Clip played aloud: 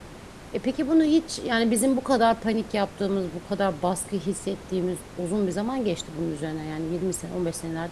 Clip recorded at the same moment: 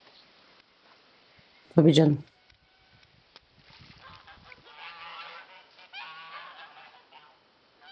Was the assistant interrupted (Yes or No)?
Yes